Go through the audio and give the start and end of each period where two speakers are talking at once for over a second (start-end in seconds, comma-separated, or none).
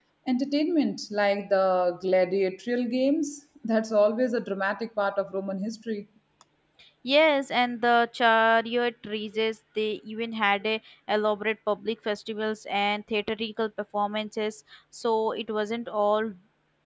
none